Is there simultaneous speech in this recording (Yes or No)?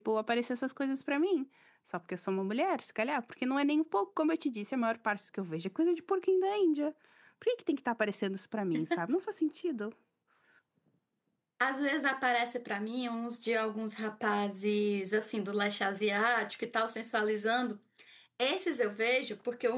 No